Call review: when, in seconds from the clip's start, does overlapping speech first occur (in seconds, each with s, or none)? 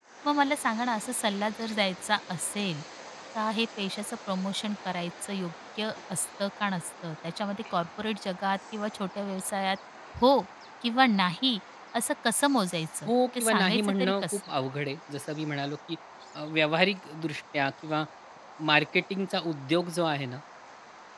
13.1 s